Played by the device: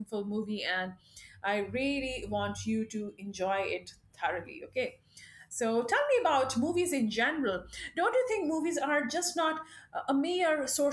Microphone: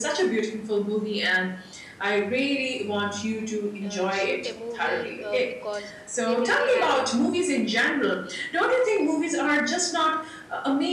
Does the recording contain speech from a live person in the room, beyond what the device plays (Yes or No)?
Yes